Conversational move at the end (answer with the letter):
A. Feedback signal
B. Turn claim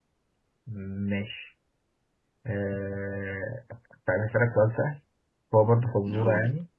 A